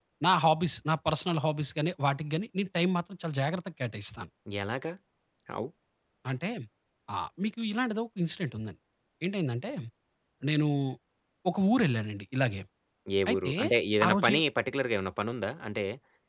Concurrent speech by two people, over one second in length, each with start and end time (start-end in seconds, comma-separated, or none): none